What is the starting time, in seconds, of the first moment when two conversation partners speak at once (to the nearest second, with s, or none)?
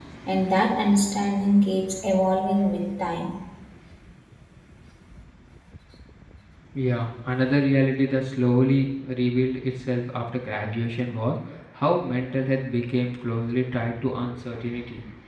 none